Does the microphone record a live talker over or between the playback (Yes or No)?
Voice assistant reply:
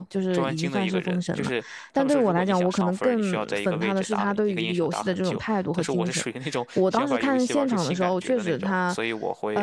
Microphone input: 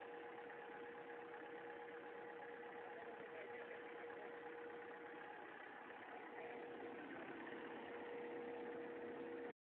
No